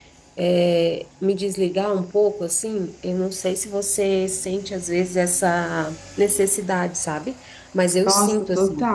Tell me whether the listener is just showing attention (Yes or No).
No